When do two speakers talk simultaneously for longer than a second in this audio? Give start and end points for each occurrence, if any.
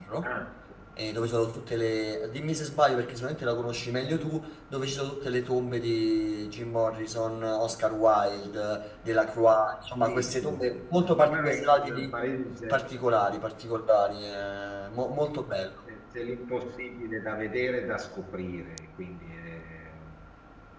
10.0-12.1

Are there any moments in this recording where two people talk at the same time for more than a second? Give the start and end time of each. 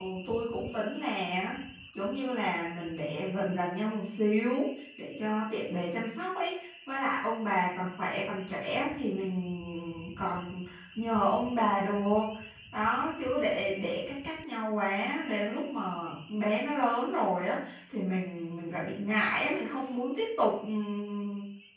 none

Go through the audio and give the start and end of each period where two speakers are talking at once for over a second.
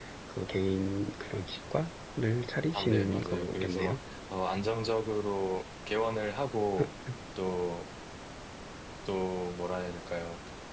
2.7-4.0

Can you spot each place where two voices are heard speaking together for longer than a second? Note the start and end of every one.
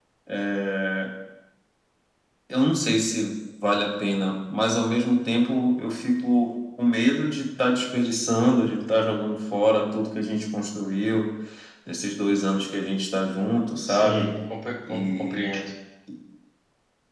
none

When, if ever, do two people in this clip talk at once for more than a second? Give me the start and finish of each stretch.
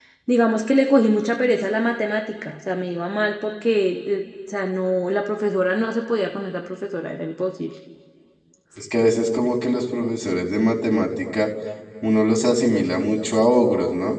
none

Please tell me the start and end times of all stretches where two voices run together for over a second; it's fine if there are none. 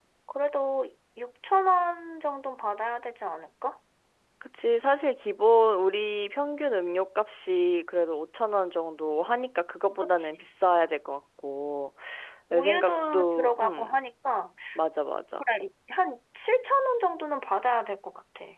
12.5-13.9

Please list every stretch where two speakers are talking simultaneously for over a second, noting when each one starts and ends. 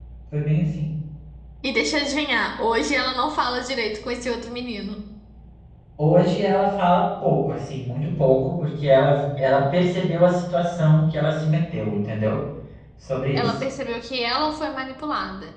none

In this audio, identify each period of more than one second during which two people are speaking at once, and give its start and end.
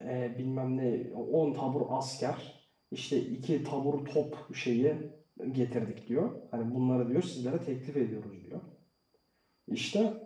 none

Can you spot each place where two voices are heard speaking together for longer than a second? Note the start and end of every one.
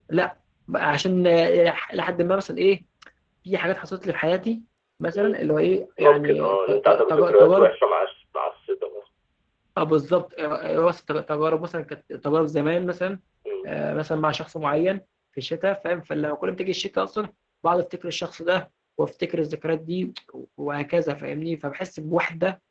6.0-7.7

